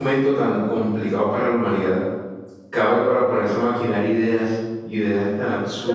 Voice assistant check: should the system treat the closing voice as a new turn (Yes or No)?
Yes